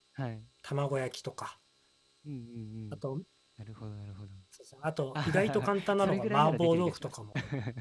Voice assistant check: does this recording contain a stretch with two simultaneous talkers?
Yes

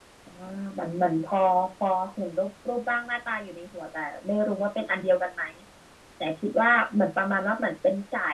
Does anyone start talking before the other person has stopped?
No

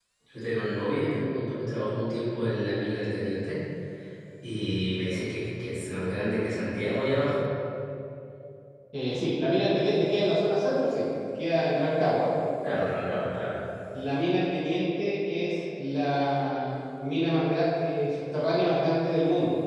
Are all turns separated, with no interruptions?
Yes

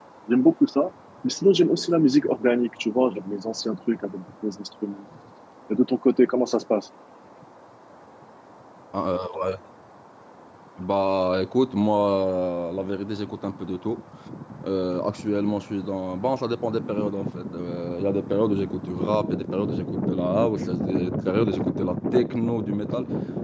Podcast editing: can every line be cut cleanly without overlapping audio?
Yes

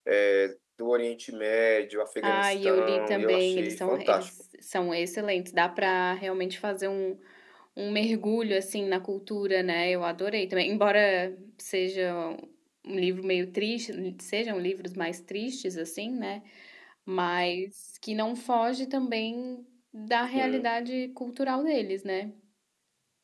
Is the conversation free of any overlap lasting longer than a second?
No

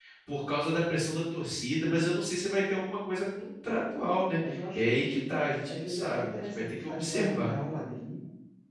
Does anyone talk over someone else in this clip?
Yes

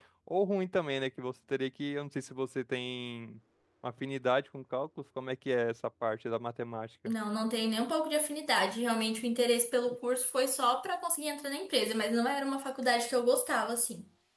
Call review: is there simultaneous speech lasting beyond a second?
No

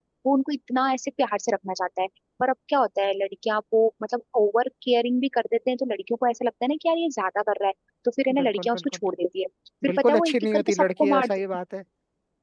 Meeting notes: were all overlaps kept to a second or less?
No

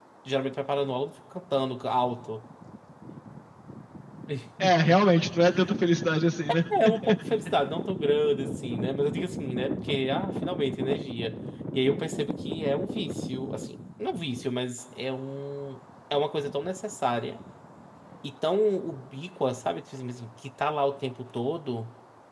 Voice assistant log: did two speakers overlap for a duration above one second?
No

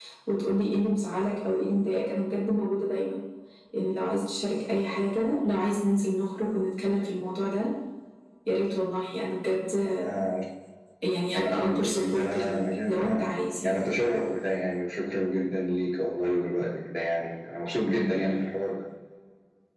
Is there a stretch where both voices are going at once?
Yes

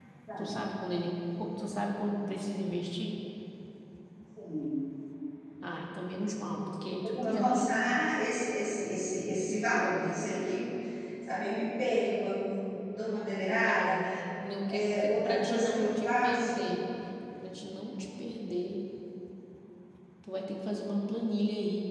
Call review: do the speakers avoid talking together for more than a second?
No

